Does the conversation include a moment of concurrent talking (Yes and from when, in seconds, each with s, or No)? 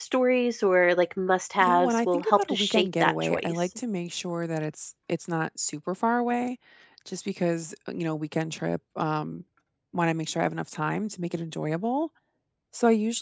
Yes, from 1.6 s